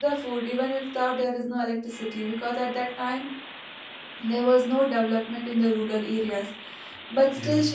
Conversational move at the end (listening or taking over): listening